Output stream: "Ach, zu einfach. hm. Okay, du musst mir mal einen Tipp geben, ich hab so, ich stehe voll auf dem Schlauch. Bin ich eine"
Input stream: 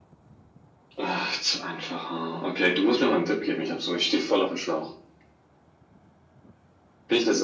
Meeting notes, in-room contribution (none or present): none